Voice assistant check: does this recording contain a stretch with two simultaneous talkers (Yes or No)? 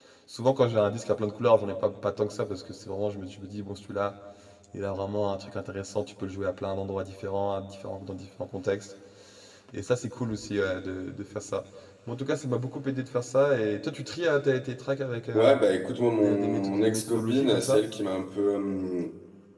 Yes